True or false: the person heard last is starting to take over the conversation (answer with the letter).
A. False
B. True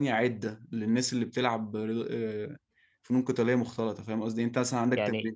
A